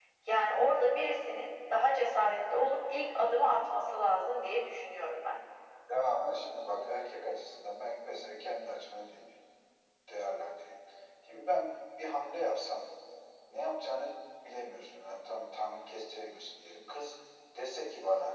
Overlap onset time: none

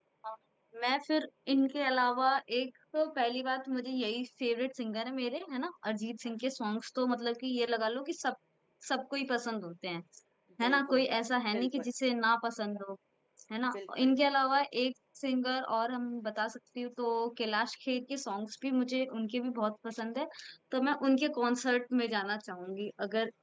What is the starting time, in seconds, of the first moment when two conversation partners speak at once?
11 s

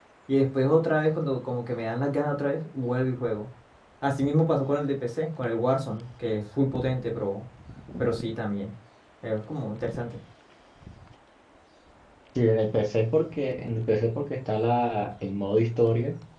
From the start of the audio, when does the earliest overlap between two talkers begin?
none

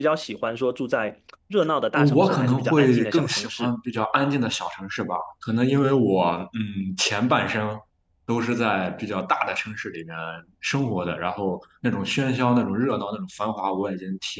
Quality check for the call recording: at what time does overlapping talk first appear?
2 s

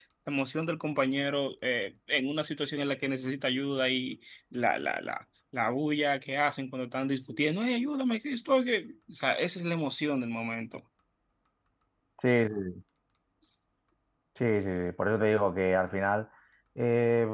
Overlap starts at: none

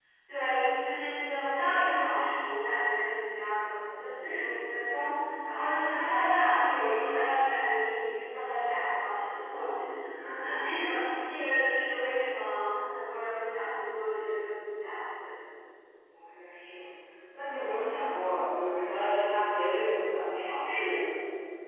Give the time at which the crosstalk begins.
none

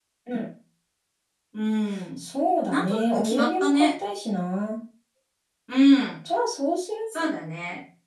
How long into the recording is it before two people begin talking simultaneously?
3 s

